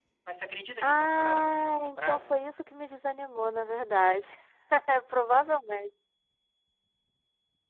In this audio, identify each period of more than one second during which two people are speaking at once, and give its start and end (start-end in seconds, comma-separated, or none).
0.8-2.4